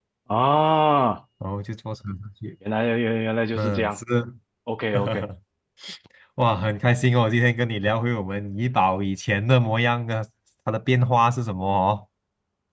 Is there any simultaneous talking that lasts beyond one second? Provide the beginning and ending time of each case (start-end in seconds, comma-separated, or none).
none